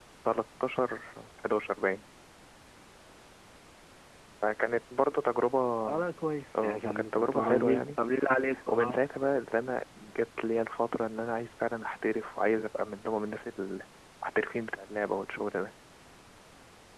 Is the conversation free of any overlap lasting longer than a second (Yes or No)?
No